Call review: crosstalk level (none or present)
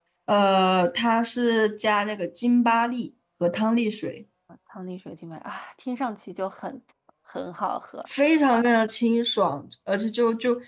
none